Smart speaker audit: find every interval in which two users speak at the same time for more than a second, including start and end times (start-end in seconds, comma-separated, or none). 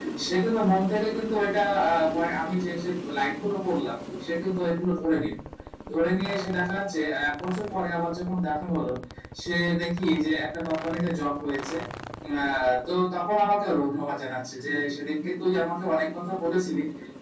none